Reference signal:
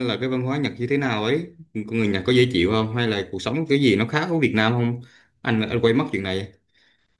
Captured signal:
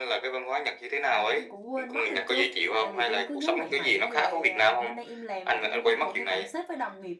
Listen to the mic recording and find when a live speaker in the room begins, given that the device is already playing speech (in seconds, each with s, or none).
1.1 s